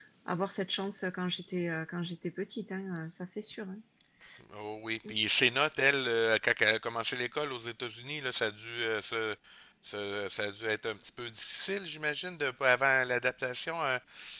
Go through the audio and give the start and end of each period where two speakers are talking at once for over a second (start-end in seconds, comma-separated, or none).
none